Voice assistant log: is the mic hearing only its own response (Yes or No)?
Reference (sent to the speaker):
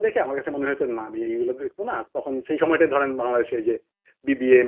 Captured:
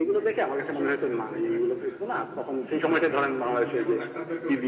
No